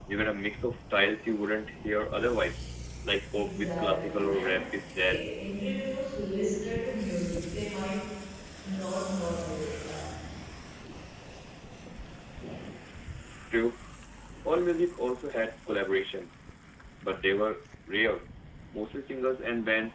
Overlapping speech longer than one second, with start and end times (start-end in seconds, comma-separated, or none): 3.3-4.7